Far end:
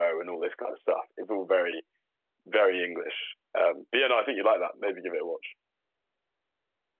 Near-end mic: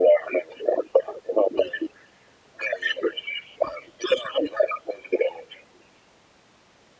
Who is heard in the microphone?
echo only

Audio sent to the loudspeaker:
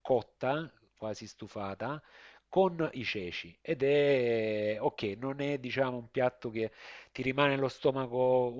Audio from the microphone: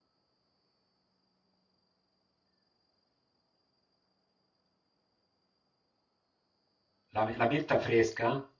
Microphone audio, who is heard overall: user only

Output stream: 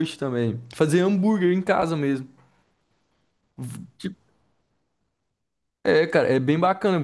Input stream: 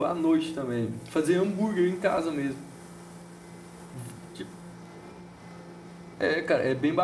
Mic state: echo only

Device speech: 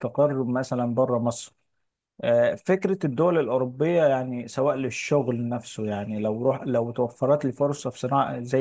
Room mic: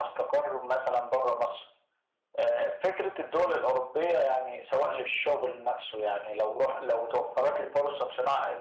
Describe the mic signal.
echo only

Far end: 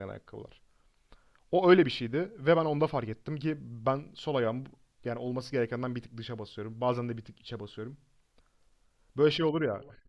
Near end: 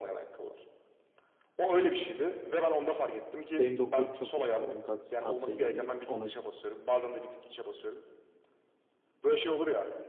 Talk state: both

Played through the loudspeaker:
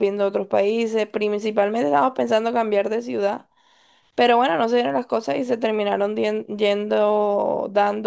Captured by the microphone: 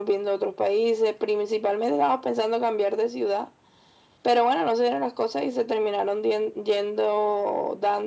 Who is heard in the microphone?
echo only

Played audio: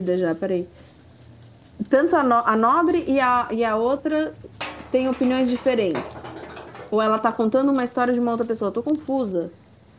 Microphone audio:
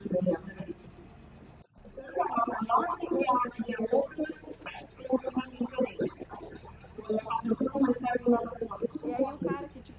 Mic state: both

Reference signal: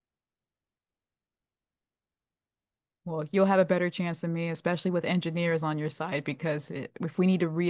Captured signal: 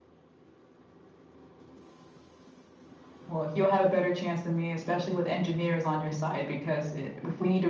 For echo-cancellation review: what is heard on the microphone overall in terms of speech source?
echo only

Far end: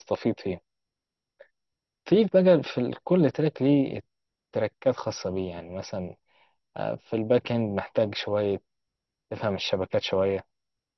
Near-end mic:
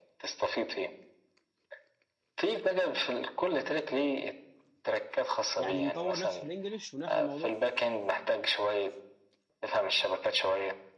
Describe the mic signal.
both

